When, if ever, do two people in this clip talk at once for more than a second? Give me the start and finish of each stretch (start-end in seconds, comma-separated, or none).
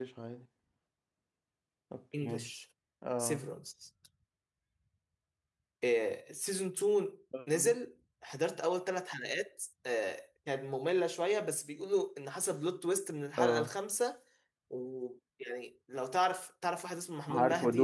none